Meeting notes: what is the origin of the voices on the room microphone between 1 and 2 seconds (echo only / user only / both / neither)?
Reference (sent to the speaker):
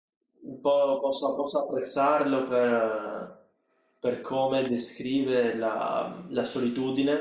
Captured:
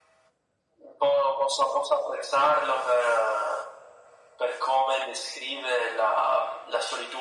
echo only